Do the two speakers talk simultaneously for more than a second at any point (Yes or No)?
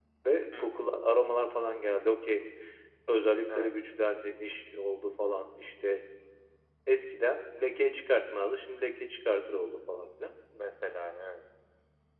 No